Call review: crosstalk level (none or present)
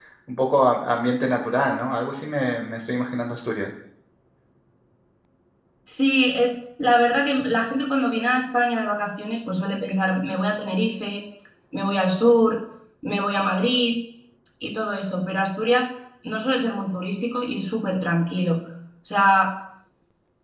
none